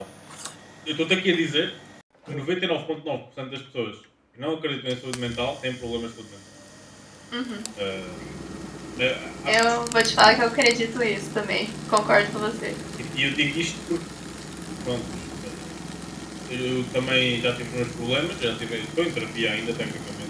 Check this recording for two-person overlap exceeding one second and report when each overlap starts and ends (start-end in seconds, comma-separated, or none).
none